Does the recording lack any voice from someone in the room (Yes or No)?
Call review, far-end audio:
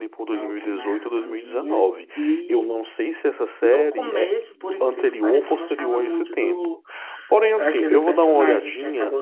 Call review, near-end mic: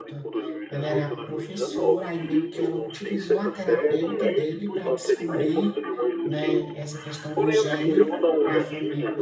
No